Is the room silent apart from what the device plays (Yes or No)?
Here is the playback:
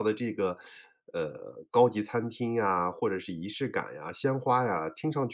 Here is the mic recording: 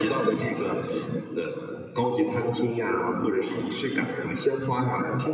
Yes